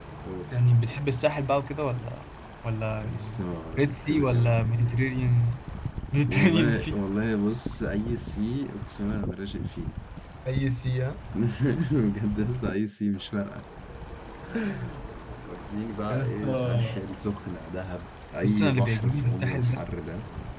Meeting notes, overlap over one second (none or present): present